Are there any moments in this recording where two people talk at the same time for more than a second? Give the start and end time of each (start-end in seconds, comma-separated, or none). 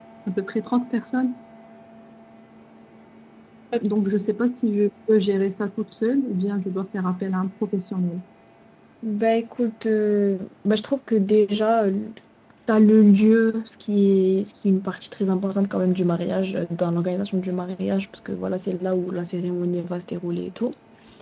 none